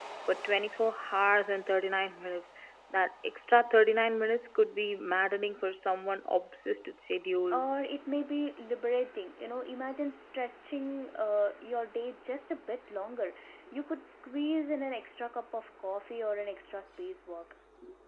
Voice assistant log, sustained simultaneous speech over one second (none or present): none